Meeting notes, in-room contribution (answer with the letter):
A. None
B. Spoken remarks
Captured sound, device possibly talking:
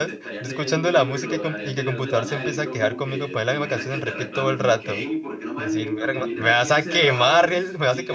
B